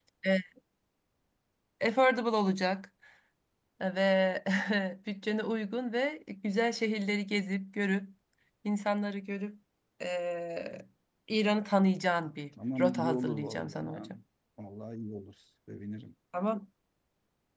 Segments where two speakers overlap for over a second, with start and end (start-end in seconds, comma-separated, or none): 12.8-14.1